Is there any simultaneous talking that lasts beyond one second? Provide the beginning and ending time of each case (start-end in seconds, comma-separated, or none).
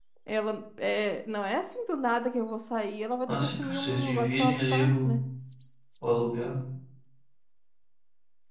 3.3-5.2